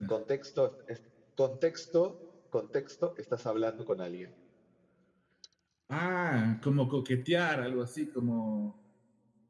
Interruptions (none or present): none